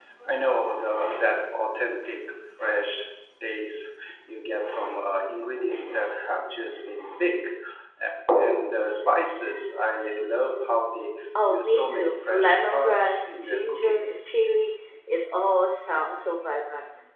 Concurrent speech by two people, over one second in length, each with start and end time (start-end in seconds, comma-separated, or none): 11.5-14.0